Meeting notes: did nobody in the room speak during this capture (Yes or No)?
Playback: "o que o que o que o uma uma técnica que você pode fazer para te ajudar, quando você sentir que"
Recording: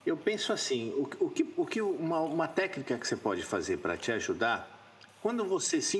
Yes